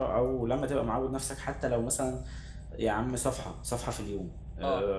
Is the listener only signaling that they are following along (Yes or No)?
Yes